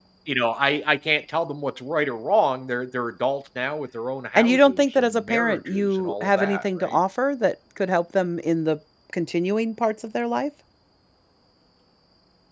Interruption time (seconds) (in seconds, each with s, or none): 4.3 s